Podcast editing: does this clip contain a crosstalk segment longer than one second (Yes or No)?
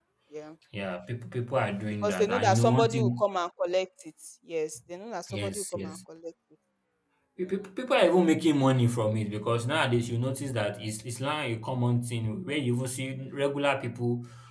Yes